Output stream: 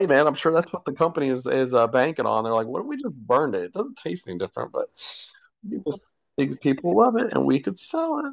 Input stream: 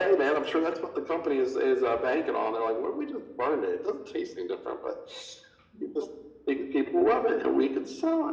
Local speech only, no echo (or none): none